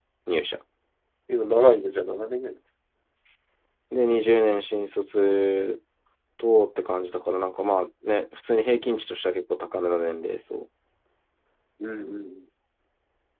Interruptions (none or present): none